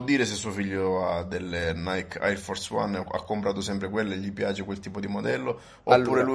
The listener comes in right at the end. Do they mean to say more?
No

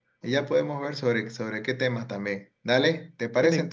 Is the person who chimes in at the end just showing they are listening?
Yes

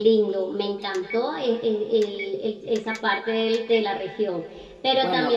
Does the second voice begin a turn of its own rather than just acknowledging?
No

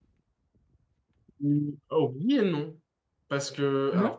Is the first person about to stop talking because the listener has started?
No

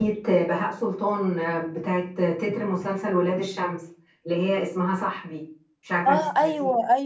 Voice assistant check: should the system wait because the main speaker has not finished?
No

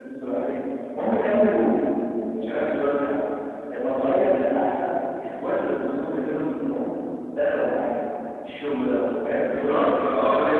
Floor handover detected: Yes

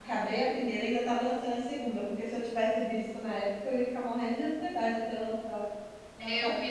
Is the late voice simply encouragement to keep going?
No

